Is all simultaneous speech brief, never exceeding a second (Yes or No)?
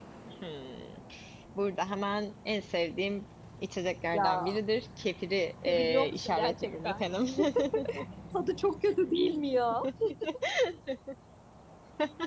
No